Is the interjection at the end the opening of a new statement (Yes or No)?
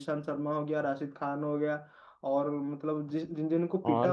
No